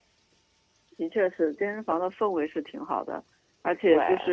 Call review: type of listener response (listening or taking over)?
listening